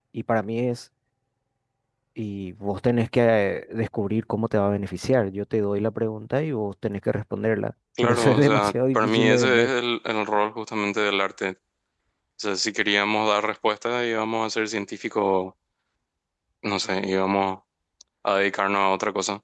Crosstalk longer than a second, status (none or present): present